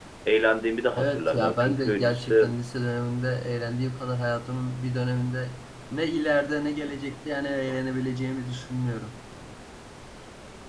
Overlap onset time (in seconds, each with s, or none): 1.0 s